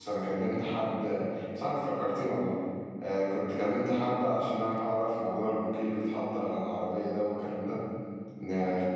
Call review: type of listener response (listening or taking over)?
listening